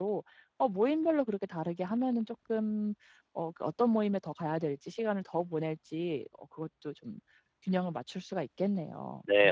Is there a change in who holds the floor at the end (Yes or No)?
Yes